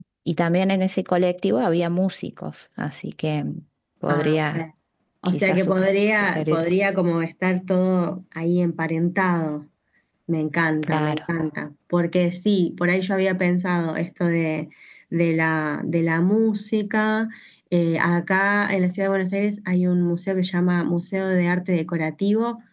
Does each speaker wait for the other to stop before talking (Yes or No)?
No